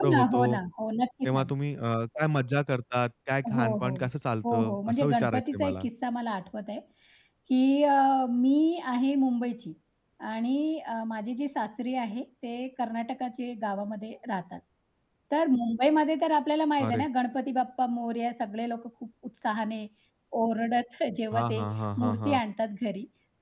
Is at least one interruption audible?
Yes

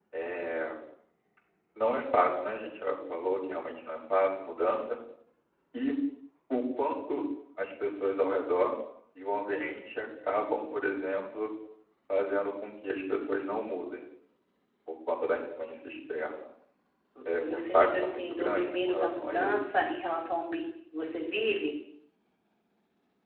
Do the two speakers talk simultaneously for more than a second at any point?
Yes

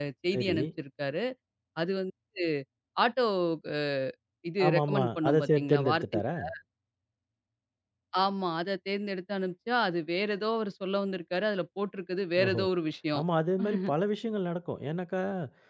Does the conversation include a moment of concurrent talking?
Yes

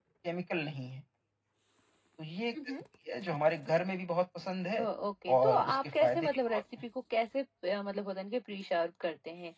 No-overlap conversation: No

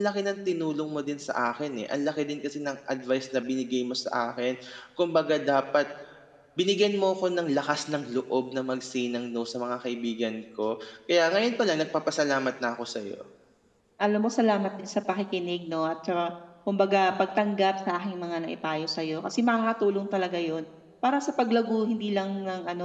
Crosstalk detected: No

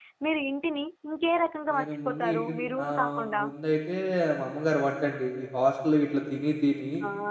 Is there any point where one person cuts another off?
Yes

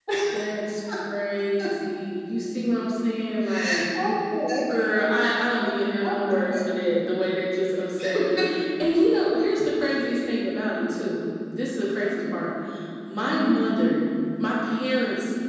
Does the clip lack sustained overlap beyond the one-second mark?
Yes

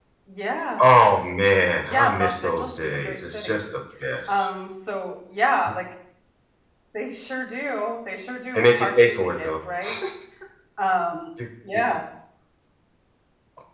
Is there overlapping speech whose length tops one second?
Yes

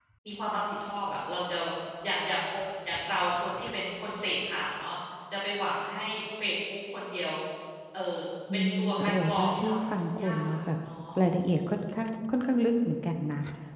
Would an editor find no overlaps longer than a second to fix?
No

